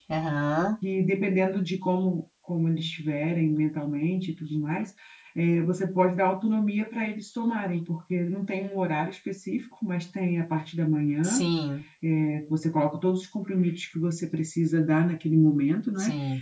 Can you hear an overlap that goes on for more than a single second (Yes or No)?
No